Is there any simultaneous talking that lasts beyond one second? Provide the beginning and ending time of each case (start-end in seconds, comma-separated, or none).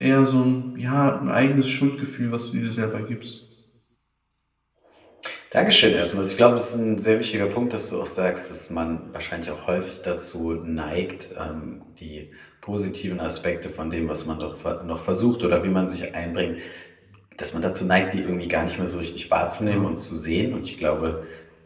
none